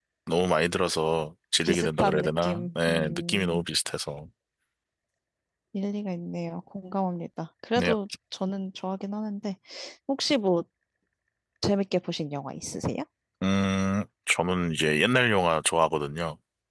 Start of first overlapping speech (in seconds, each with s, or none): 1.6 s